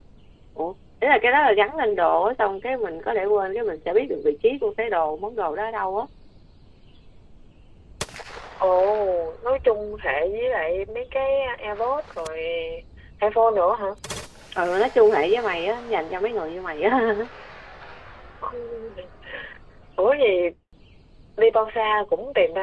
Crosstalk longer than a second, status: none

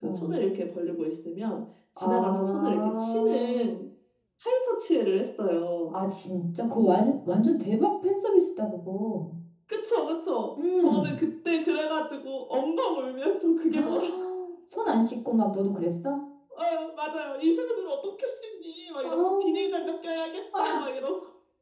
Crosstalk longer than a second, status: present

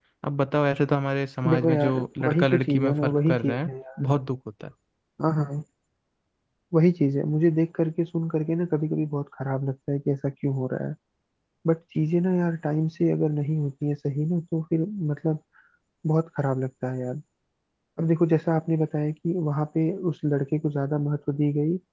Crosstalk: present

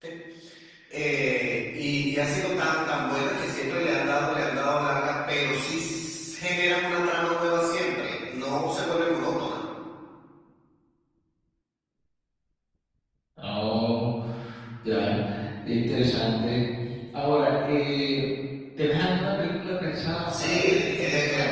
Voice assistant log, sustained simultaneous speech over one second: present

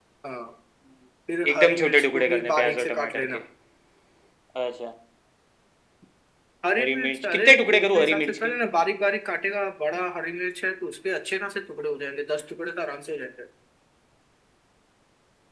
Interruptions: present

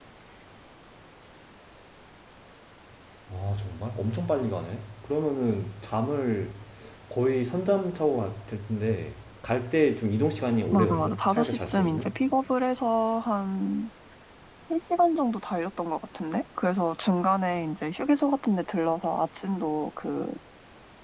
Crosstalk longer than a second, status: present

